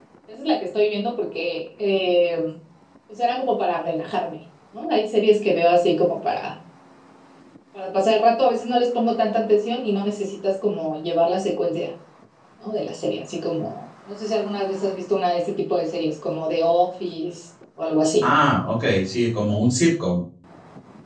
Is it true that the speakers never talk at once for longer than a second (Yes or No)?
Yes